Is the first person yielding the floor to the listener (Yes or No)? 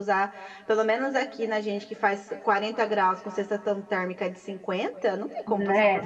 Yes